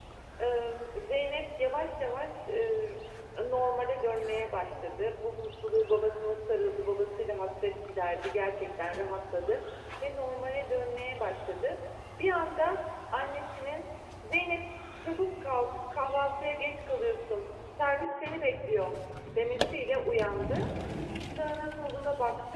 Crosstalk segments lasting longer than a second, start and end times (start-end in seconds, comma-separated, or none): none